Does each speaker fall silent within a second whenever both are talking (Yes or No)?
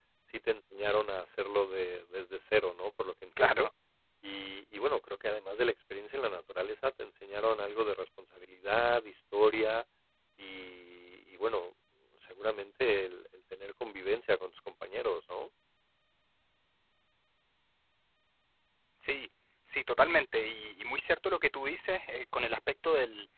Yes